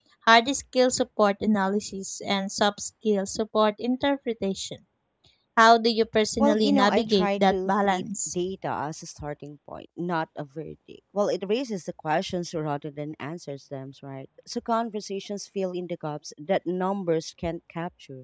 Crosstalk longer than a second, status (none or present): present